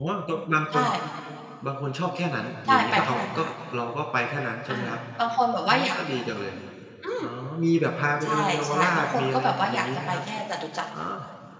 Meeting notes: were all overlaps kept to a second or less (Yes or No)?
No